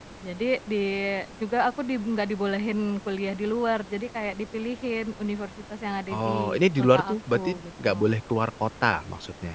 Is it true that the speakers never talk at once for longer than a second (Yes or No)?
No